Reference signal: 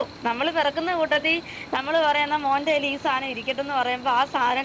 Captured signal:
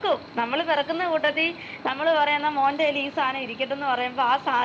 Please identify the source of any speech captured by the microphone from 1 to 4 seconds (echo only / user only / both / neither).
echo only